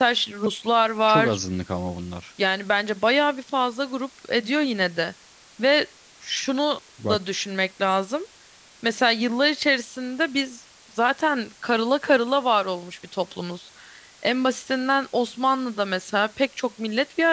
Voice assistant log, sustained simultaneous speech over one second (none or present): none